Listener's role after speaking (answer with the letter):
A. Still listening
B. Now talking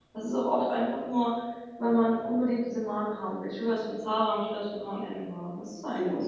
B